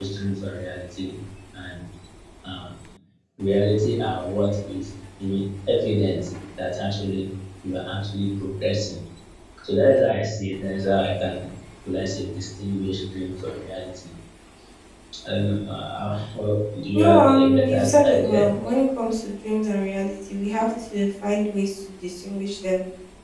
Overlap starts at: 16.9 s

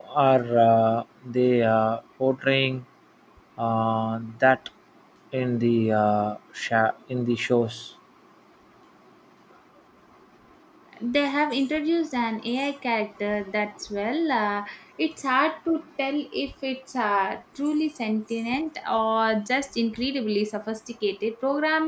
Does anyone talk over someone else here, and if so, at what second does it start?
none

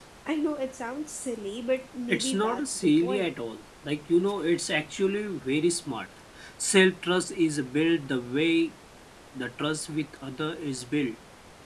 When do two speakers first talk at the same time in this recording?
2.1 s

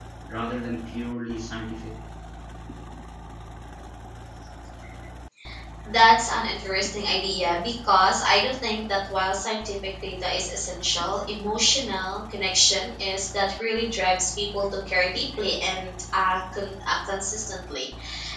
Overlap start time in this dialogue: none

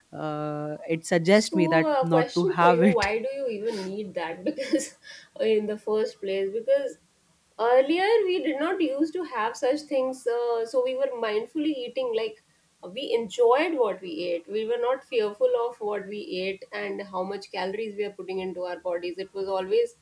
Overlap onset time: 1.3 s

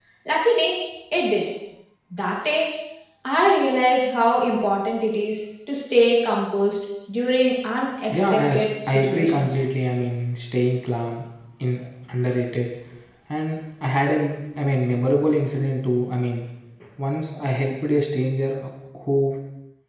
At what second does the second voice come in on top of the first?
8.1 s

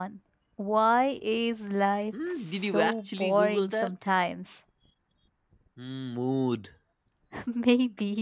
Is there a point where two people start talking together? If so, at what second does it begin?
2.1 s

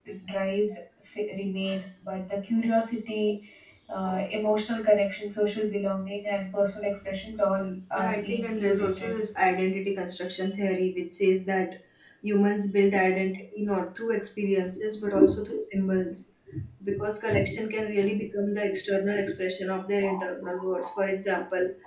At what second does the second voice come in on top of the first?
7.9 s

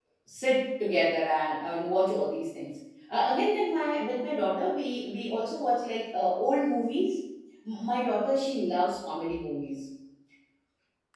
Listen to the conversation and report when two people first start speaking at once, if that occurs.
none

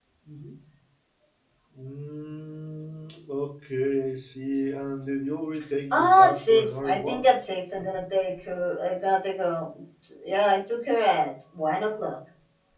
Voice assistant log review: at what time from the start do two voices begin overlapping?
5.9 s

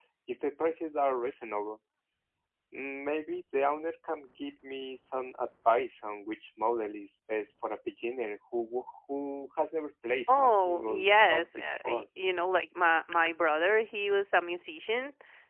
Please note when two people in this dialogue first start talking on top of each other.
10.3 s

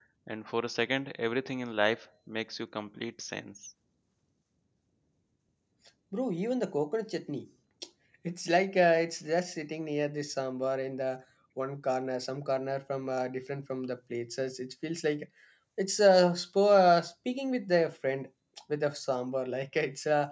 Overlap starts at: none

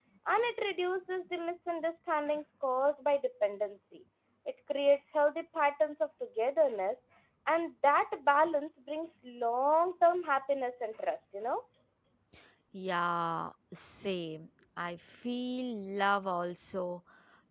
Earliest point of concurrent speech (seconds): none

